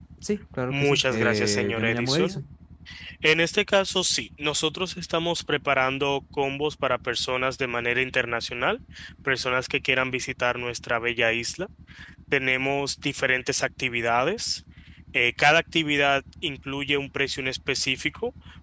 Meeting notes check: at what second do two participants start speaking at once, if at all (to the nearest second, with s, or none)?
1 s